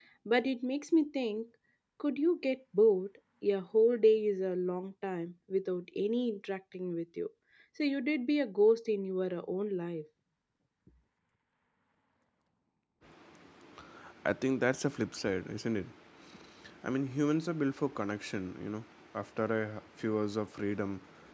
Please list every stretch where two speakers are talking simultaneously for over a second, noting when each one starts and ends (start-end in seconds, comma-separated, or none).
none